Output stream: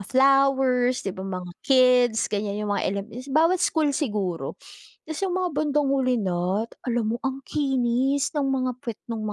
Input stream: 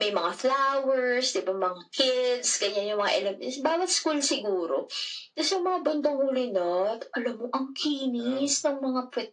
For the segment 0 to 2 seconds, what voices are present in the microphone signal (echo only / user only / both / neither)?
echo only